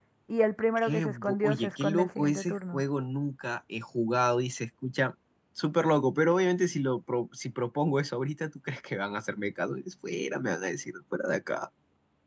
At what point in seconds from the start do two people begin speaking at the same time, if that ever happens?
0.8 s

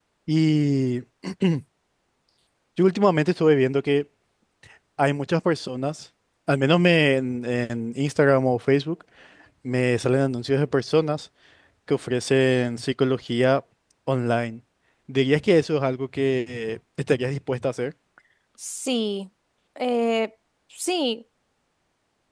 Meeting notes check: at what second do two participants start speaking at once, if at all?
none

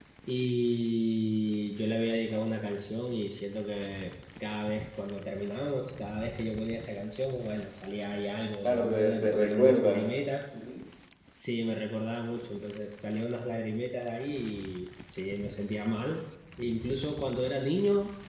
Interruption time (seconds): 8.6 s

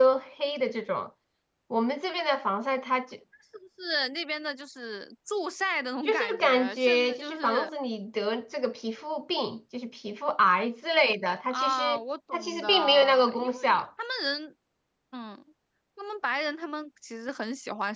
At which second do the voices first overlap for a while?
6.0 s

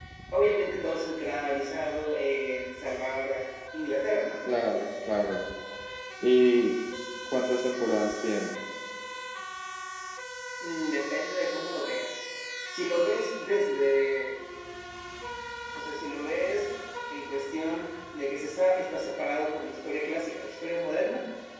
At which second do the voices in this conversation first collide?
none

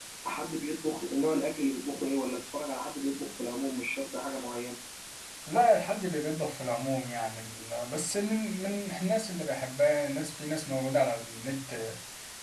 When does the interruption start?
none

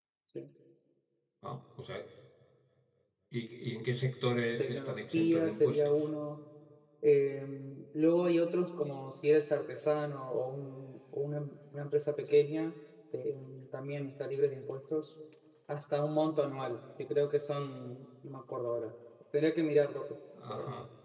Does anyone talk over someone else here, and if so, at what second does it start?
4.6 s

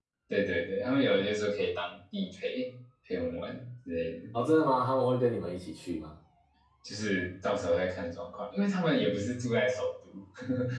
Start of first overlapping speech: none

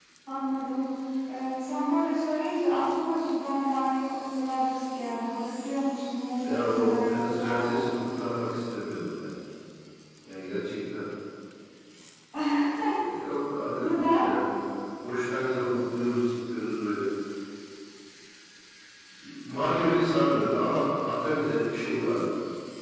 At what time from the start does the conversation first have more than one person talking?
6.4 s

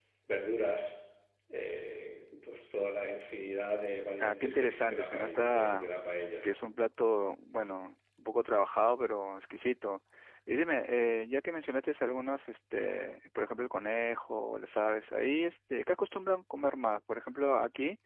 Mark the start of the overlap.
4.2 s

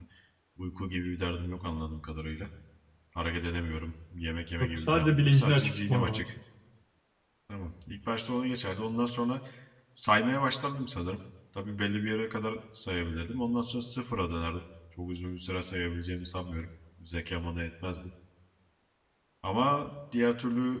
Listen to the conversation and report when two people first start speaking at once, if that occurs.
4.6 s

